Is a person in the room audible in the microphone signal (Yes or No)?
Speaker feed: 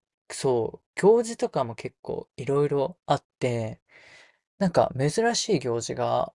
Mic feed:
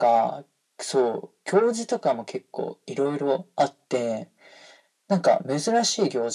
No